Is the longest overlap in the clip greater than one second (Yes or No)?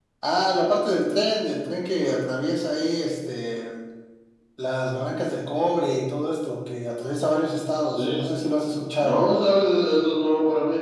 No